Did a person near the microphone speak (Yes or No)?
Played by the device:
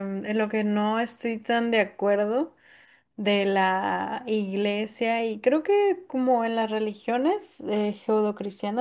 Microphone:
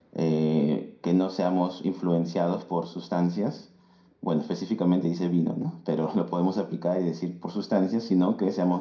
Yes